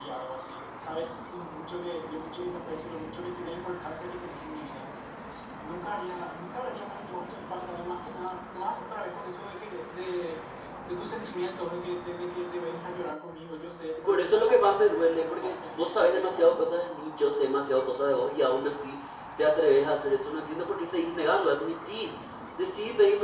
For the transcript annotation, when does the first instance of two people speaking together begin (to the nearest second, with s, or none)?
14 s